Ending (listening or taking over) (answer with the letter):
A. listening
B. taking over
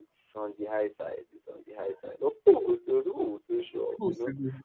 B